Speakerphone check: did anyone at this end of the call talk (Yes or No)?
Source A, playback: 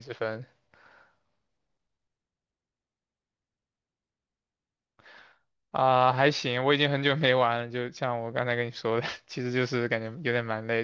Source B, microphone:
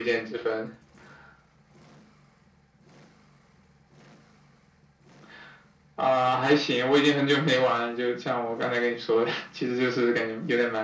No